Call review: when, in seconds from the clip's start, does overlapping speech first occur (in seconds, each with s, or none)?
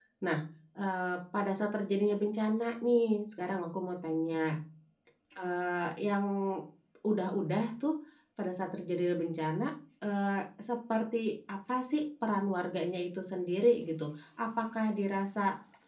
none